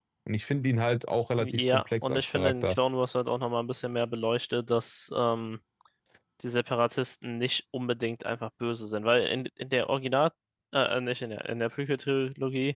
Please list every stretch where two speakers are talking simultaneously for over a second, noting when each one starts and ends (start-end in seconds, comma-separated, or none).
1.4-2.8